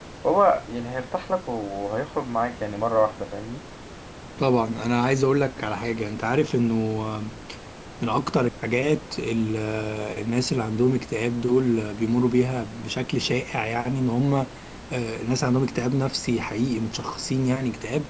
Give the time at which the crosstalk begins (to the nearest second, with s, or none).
none